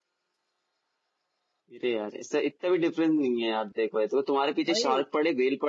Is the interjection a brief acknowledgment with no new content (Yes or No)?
Yes